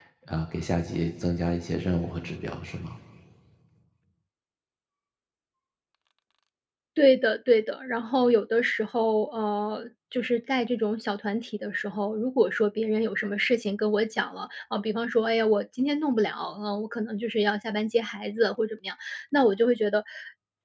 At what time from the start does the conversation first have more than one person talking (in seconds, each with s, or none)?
none